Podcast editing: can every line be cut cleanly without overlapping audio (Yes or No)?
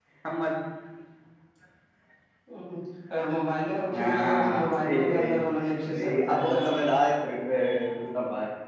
No